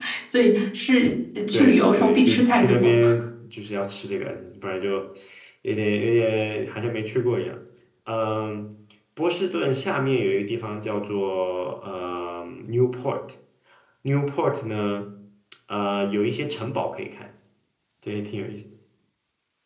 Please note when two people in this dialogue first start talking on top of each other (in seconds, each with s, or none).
1.5 s